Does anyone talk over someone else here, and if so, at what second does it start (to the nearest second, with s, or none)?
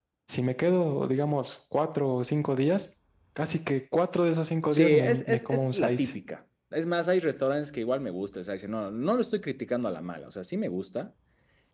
5 s